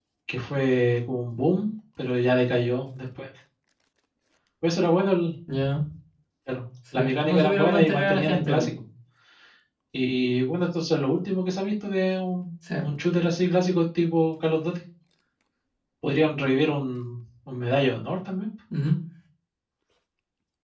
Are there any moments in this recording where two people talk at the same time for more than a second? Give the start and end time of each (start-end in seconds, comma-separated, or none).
6.9-8.7